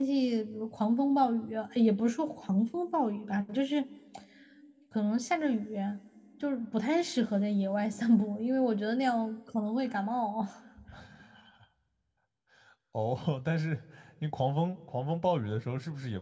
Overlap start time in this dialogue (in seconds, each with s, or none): none